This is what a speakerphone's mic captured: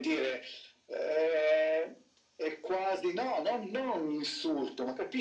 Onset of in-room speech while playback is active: none

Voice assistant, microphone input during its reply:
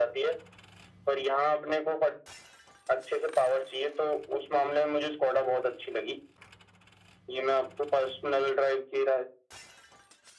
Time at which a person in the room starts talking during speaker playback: none

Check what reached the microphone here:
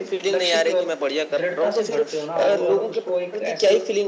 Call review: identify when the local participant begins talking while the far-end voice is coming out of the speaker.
none

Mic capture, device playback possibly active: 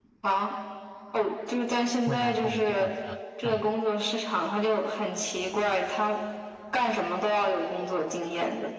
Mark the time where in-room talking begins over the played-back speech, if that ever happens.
2.0 s

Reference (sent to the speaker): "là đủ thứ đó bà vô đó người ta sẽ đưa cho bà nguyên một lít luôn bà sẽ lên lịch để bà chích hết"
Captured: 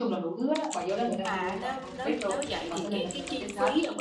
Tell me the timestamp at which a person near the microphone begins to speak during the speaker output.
1.0 s

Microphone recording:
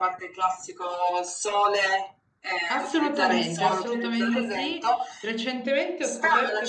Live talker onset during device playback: 2.7 s

